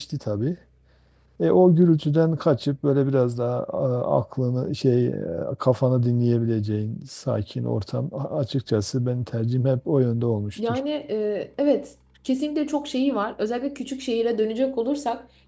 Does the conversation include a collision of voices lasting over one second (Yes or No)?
No